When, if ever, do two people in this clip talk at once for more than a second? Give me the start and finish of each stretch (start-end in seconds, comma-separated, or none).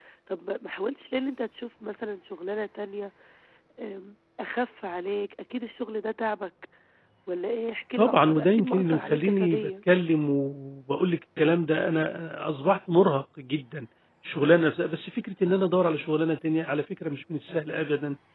8.0-9.7